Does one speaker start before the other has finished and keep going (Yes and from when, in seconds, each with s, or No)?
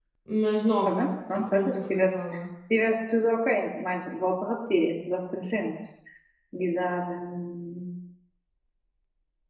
Yes, from 0.8 s